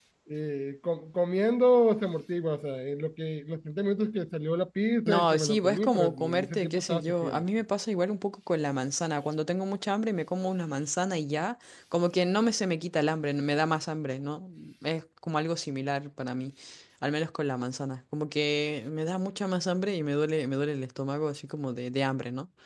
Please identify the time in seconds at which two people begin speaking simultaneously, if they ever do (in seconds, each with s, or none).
5.1 s